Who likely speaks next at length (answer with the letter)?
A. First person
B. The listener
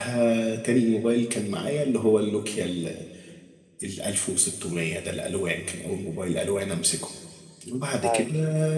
A